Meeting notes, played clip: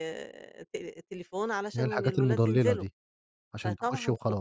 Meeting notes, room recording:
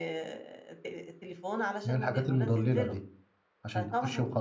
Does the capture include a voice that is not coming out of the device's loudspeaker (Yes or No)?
No